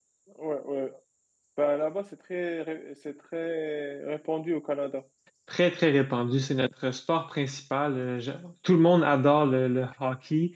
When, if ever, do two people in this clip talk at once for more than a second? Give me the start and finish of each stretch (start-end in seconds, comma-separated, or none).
none